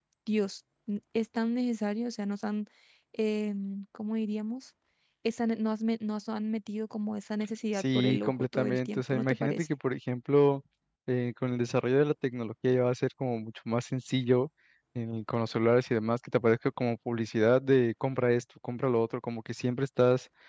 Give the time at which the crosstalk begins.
8 s

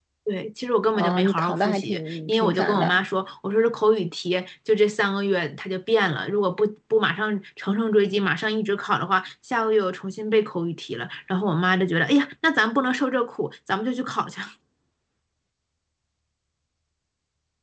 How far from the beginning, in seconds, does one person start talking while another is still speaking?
1 s

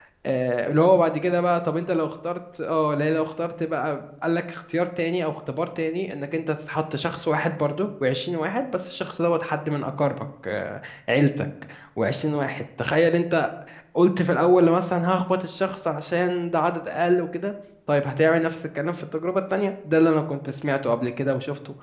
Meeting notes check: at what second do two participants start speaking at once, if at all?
none

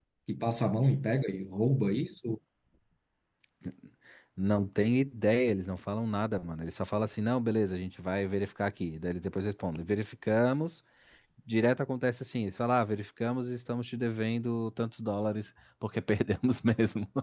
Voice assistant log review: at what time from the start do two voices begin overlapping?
none

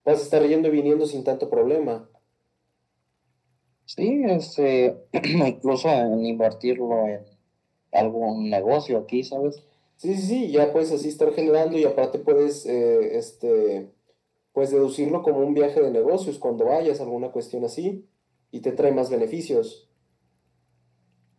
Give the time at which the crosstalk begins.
none

